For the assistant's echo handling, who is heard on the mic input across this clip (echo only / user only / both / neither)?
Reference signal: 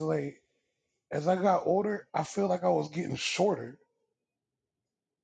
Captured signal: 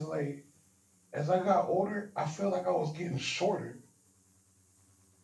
echo only